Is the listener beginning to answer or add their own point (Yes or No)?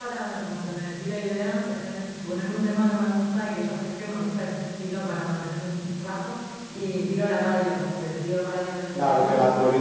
Yes